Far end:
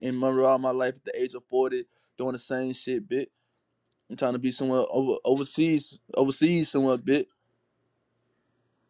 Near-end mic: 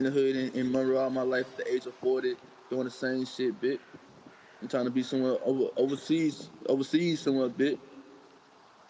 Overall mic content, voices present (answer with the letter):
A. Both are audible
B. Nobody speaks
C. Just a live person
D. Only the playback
D